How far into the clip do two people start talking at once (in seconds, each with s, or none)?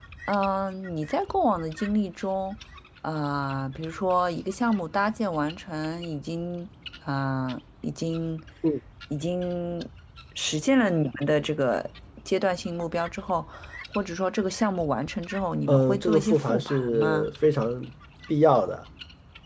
15.7 s